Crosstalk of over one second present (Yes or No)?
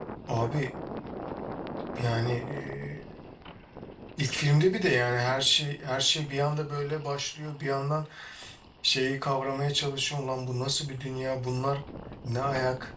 No